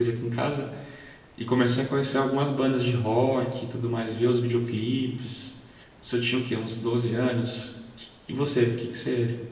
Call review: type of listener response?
listening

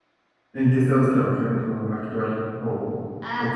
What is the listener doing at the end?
taking over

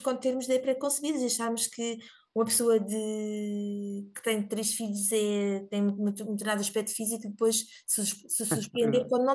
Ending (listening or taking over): listening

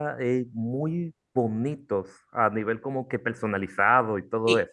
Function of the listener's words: taking over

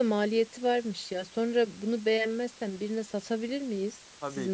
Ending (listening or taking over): taking over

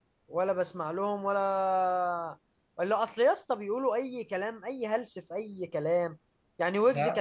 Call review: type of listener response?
listening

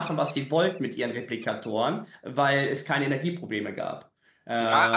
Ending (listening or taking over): taking over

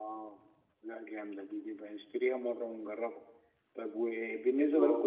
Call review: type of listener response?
listening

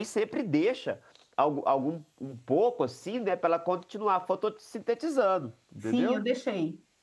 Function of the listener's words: taking over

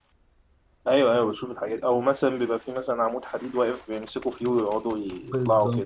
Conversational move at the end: taking over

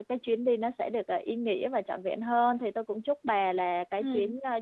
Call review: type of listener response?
listening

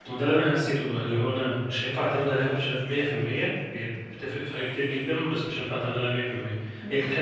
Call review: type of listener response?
listening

